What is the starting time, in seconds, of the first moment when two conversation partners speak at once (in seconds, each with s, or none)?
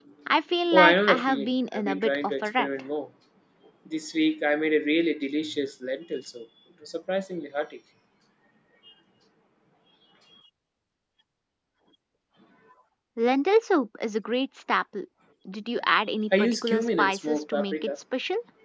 0.7 s